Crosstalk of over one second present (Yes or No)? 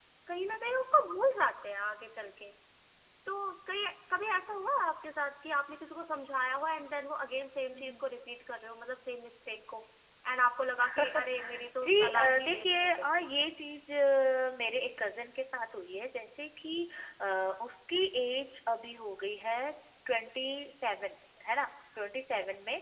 Yes